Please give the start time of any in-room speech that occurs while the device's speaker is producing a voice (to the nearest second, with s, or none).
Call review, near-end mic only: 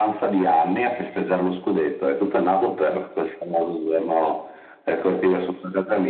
none